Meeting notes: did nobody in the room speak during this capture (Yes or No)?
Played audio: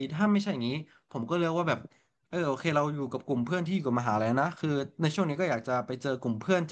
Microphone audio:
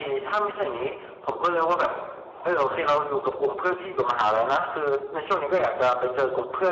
Yes